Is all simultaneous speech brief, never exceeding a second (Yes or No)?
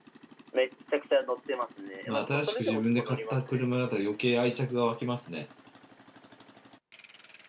No